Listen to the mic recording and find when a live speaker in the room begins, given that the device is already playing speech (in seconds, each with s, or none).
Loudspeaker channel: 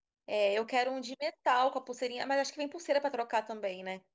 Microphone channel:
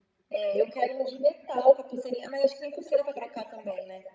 none